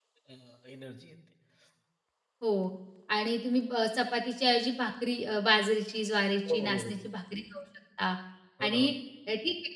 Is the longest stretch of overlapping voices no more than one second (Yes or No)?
Yes